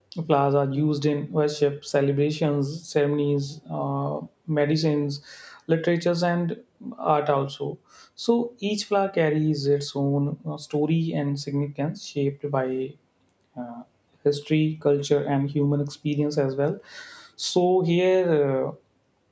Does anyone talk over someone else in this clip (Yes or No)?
No